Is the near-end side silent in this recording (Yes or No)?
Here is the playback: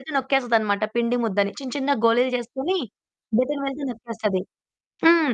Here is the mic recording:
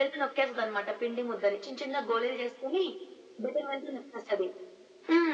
Yes